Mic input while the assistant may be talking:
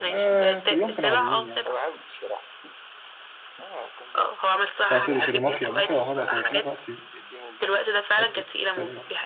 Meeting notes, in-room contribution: present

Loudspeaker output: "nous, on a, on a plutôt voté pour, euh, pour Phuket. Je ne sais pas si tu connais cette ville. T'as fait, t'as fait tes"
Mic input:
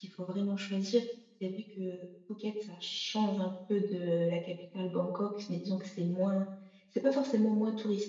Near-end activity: present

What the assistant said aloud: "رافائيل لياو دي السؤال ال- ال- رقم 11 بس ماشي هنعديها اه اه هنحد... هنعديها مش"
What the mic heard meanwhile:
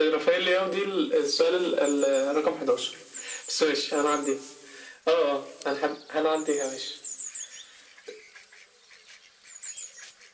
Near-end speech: none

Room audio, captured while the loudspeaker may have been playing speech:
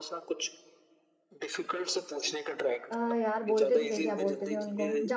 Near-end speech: present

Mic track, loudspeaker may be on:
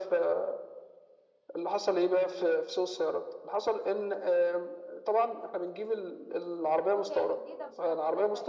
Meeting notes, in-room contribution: present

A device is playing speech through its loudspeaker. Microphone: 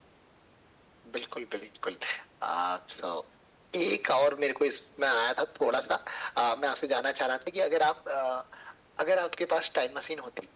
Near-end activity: none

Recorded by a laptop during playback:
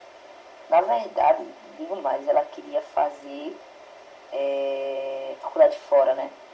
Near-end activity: none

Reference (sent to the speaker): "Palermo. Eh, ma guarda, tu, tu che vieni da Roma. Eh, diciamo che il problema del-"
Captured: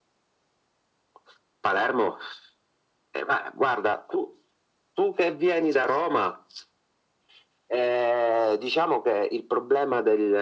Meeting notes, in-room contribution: none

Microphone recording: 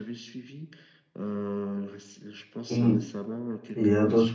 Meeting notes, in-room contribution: present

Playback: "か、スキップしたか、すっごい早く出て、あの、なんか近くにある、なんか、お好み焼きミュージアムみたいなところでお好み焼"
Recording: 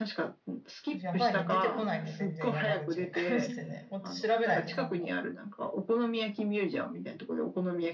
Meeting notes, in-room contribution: present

